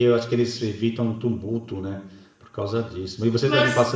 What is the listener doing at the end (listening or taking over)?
listening